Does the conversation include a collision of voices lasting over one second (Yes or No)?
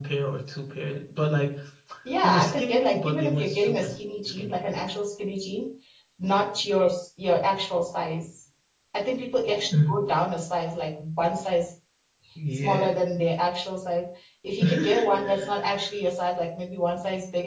Yes